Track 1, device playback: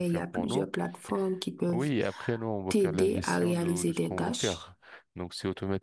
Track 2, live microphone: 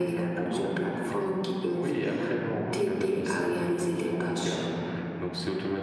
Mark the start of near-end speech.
none

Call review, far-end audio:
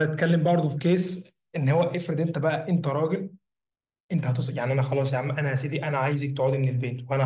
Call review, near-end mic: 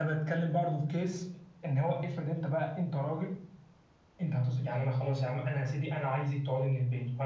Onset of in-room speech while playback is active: none

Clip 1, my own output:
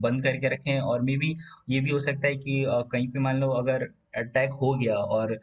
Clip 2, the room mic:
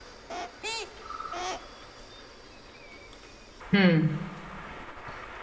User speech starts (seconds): 4 s

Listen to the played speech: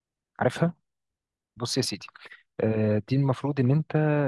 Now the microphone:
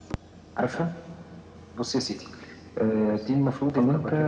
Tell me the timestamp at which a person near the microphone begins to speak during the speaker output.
3 s

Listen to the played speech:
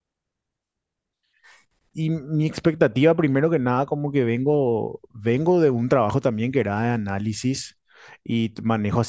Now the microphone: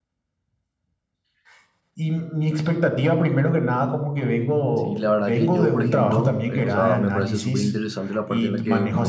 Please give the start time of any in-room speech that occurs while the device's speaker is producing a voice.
5 s

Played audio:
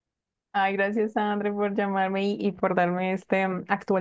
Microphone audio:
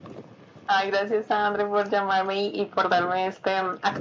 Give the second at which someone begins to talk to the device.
none

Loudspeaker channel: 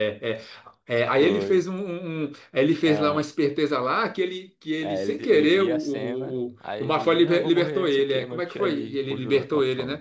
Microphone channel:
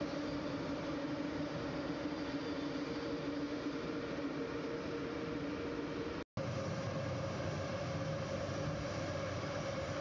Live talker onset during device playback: none

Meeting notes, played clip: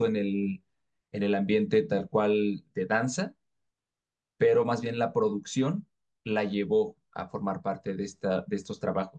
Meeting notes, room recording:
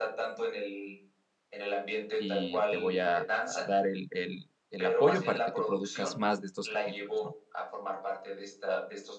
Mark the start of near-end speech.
2 s

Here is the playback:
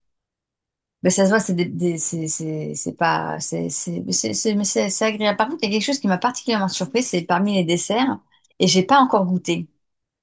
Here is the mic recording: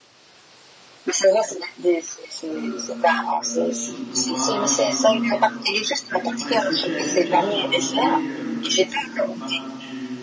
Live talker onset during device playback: 2 s

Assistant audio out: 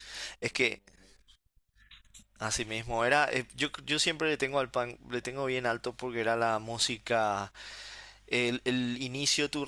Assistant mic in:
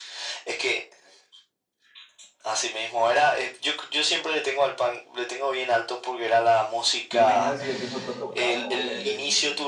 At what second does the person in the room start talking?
7 s

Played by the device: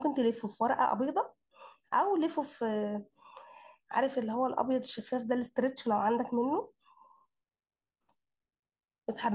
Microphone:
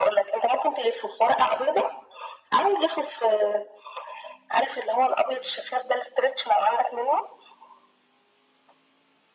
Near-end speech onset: none

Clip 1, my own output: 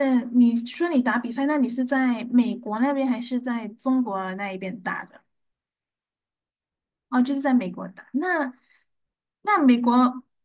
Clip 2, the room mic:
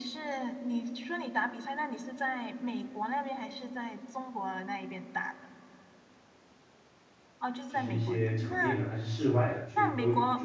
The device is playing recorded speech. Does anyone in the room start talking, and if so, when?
8 s

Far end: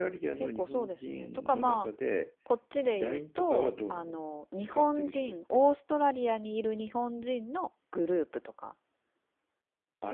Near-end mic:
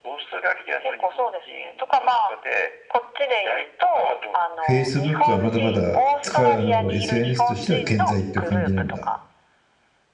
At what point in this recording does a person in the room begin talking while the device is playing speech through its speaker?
5 s

